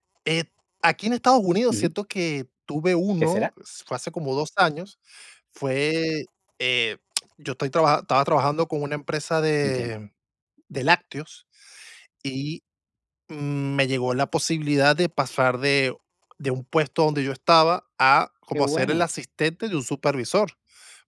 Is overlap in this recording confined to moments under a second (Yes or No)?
Yes